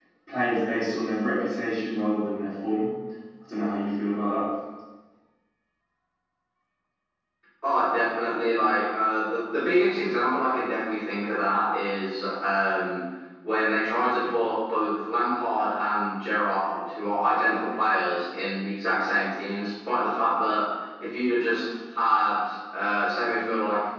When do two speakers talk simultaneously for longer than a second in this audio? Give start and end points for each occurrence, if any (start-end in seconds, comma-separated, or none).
none